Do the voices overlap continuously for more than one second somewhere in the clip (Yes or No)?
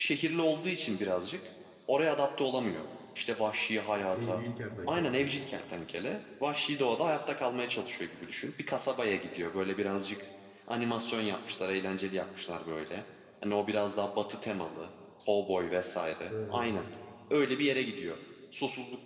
No